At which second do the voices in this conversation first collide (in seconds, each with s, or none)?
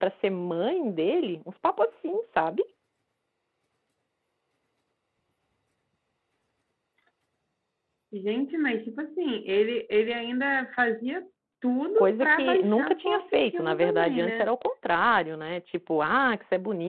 12.0 s